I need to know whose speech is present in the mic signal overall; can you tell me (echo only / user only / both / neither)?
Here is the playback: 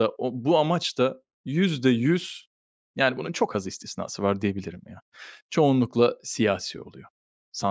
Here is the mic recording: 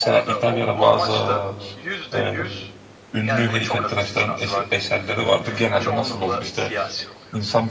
both